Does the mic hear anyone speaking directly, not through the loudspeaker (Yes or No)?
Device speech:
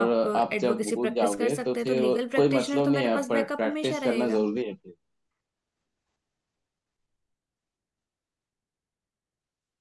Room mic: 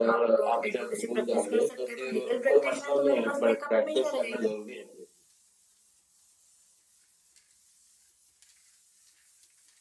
No